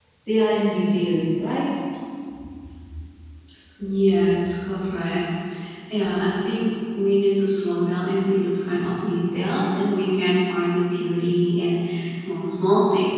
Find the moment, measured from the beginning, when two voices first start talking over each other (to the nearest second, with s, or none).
none